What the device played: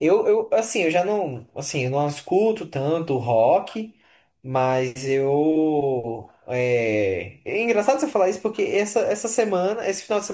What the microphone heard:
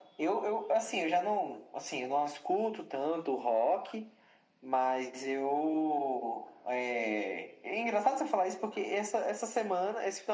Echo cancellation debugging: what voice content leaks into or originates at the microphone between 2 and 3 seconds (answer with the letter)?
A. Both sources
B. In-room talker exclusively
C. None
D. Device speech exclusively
D